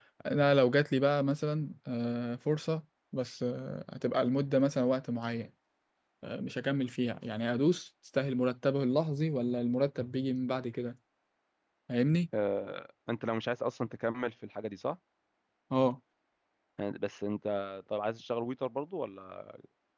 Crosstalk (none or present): none